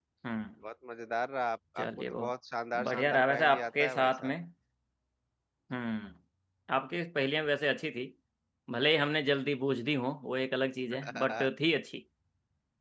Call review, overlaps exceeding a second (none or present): present